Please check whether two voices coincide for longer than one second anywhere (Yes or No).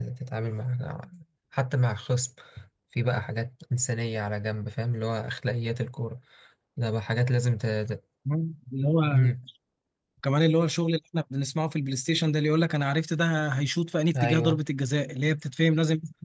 No